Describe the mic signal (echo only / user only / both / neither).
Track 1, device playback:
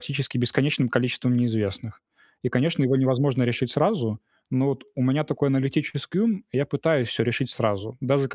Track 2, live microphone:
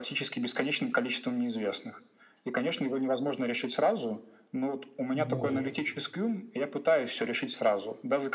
both